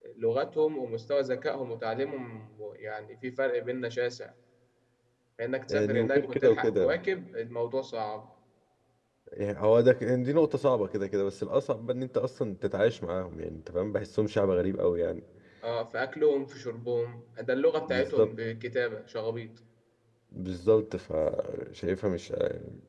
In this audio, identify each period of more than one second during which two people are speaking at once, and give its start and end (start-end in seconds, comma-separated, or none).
5.7-7.0